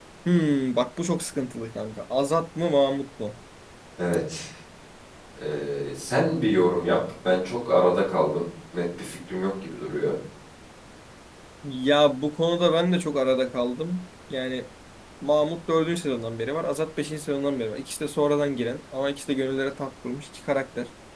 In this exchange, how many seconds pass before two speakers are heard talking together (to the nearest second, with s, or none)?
none